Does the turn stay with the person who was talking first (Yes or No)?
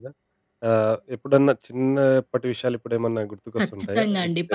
No